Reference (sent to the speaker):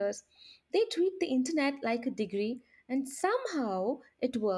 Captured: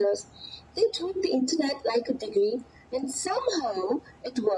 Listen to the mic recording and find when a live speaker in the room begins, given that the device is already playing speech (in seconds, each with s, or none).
none